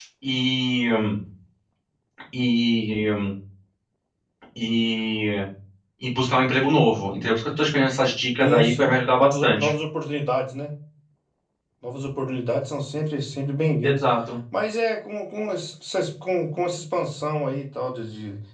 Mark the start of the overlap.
8.4 s

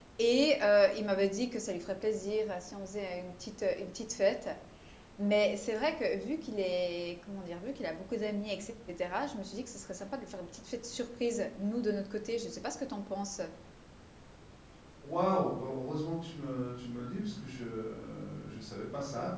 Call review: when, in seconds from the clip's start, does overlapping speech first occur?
none

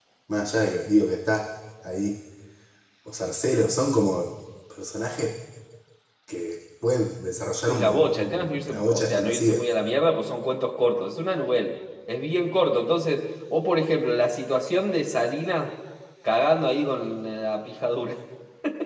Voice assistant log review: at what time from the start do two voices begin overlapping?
7.7 s

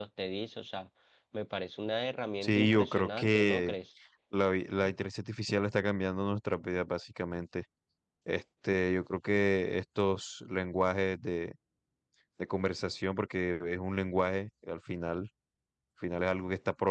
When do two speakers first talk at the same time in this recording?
2.4 s

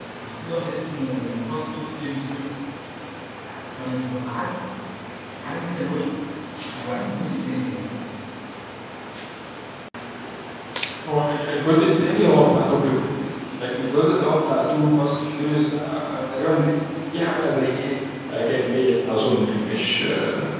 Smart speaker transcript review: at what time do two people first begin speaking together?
none

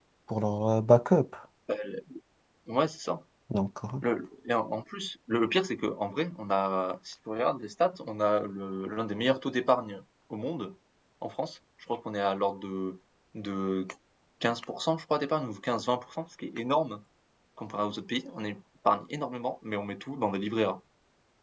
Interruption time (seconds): none

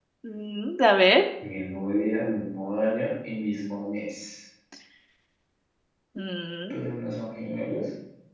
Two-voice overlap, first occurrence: none

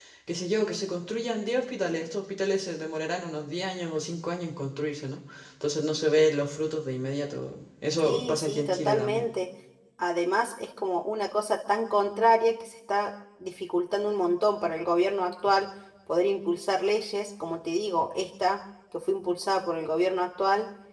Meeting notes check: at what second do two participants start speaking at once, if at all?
8.0 s

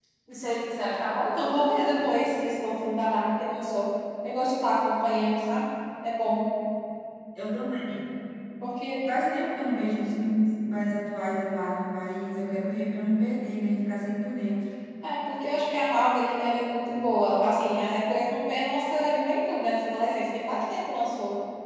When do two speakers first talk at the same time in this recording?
none

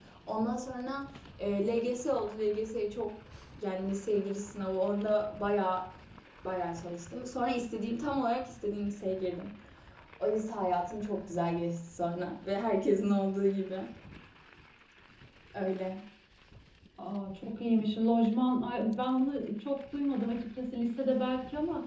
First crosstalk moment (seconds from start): none

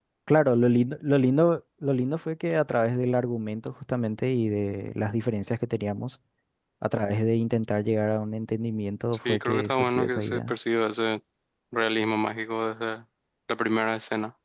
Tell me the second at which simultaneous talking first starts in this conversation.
9.2 s

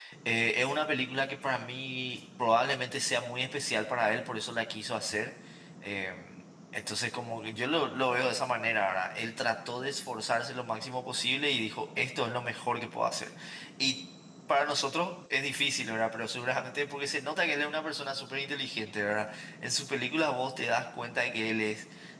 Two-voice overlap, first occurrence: none

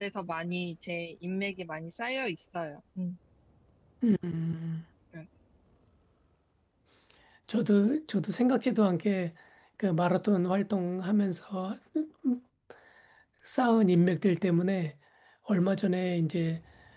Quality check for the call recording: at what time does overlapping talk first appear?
none

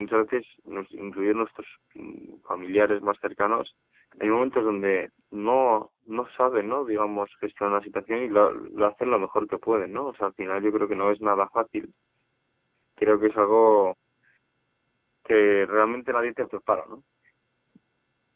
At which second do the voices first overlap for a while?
none

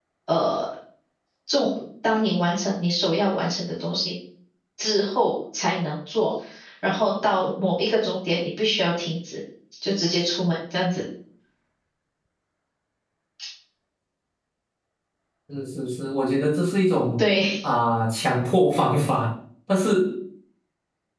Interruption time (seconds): none

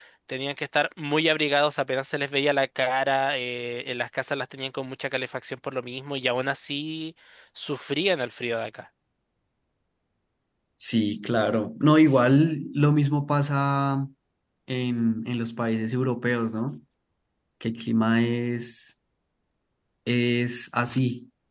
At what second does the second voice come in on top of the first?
none

